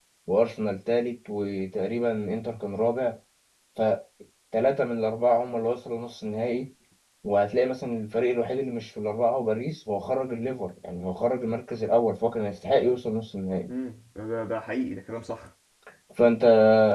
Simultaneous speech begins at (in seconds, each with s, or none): none